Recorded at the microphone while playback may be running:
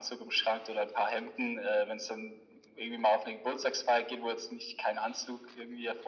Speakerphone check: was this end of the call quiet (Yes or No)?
Yes